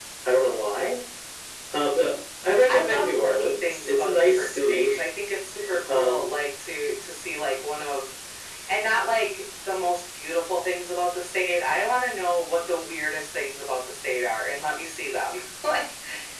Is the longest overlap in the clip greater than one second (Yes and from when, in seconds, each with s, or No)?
Yes, from 2.7 s